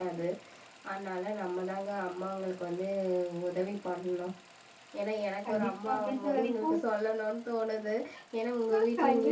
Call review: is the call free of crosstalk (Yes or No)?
No